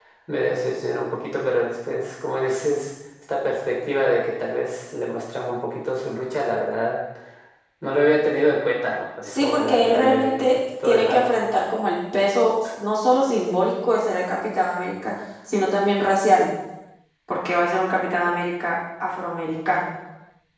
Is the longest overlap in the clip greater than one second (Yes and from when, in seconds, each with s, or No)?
Yes, from 9.2 s